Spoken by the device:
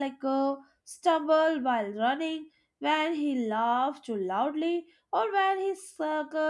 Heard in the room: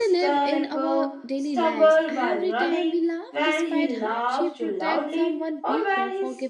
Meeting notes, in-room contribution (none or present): present